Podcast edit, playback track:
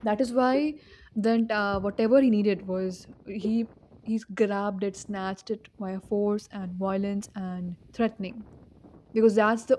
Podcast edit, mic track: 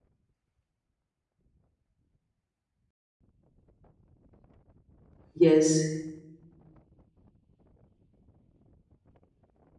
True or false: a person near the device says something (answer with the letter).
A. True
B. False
A